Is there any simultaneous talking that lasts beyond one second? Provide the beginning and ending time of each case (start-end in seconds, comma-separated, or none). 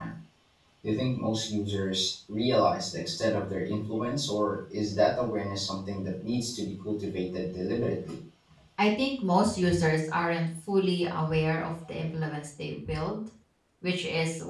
none